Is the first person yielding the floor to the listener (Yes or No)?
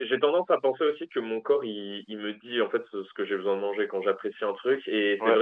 No